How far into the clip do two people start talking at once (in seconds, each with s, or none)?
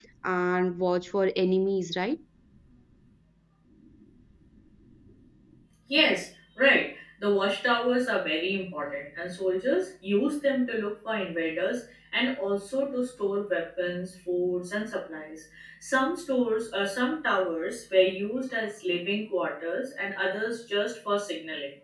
none